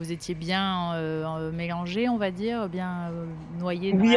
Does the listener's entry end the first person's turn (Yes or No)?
Yes